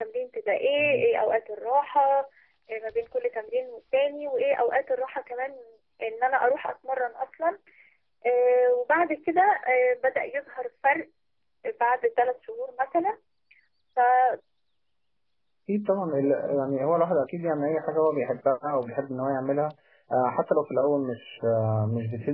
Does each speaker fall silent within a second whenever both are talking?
Yes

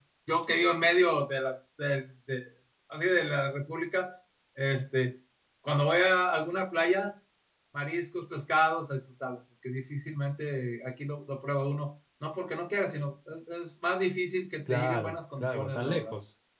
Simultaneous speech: Yes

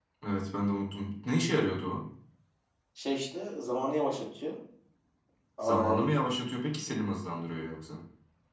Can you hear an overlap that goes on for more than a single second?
No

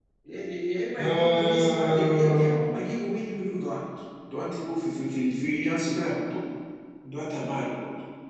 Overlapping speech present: Yes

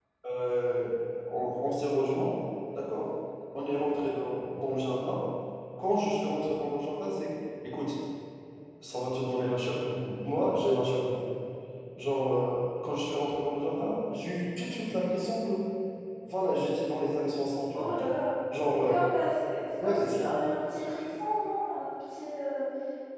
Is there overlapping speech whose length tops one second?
No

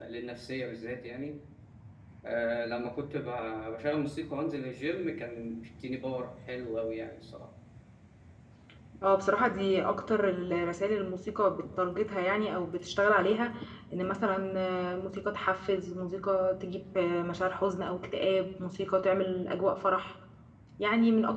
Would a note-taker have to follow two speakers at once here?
No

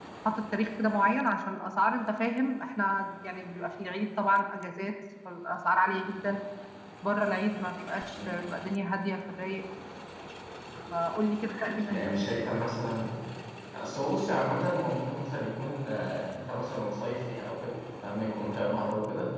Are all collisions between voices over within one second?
Yes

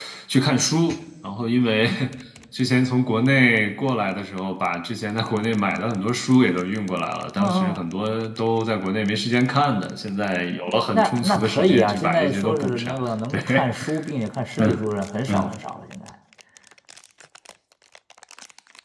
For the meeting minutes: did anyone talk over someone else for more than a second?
Yes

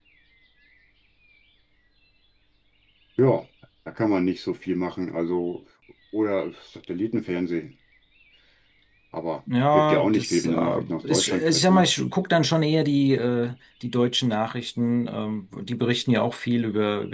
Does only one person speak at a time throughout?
No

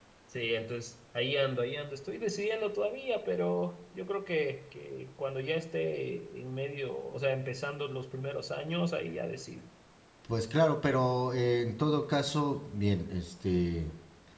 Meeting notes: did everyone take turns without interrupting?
Yes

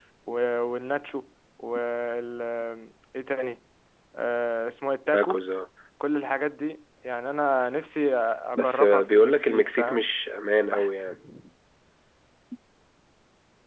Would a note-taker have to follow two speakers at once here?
Yes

